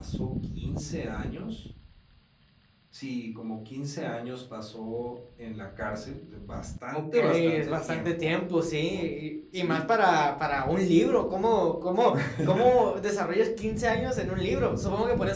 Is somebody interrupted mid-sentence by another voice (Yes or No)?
Yes